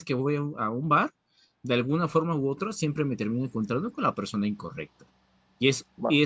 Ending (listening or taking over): listening